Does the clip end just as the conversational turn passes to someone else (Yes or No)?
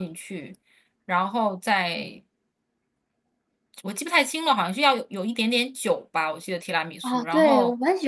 Yes